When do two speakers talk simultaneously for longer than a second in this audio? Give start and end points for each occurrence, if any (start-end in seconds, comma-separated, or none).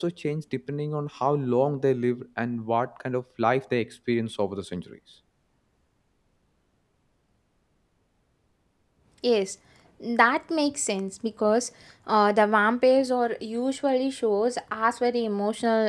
none